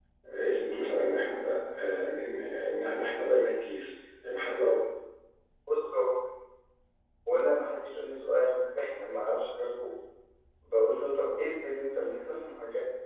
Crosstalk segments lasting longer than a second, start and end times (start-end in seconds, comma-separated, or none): none